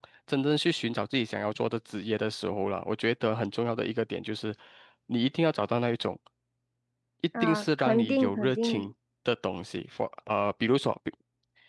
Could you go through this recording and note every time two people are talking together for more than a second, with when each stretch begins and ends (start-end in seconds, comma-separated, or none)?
7.4-8.9